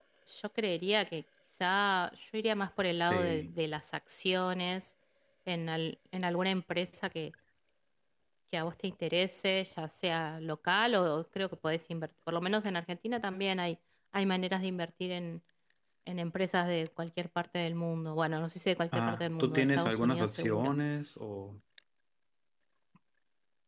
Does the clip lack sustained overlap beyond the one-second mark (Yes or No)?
No